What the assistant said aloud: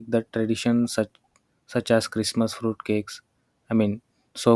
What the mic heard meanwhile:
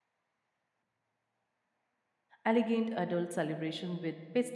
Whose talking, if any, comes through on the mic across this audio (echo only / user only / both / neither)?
user only